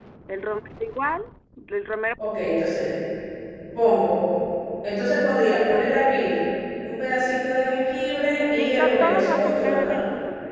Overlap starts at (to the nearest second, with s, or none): 9 s